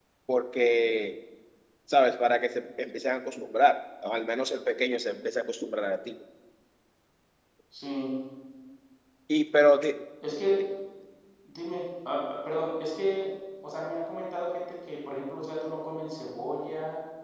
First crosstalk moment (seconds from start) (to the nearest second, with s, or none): none